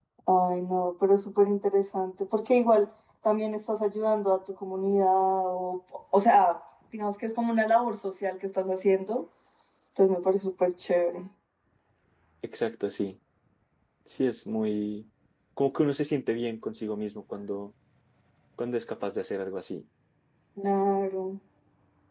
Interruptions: none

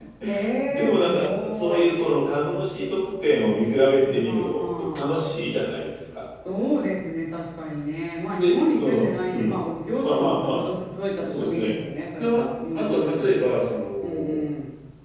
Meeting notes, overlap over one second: present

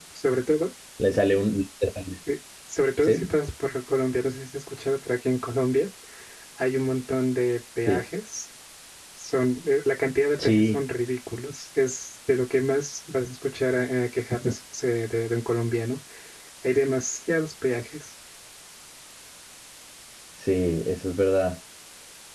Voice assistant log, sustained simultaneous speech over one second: none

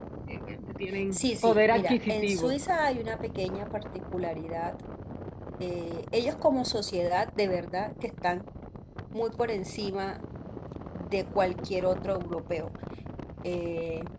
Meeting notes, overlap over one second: present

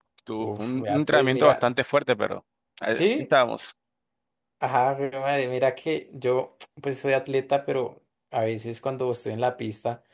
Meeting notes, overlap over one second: present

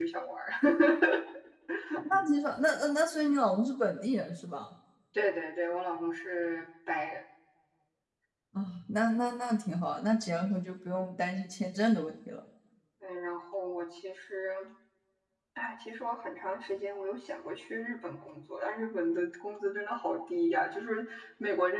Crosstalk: none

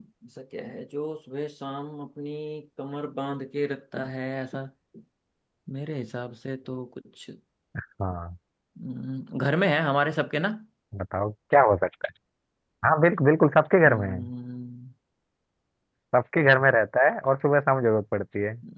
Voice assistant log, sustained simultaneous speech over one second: none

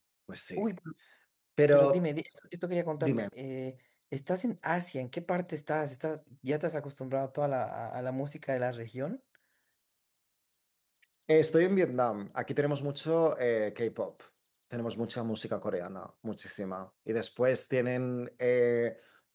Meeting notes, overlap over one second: none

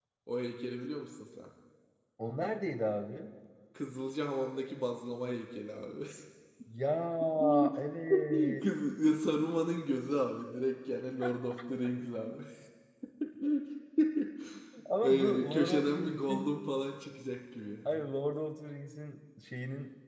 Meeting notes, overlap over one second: present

